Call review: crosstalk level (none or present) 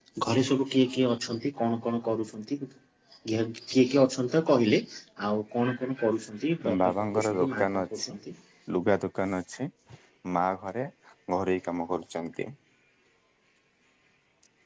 present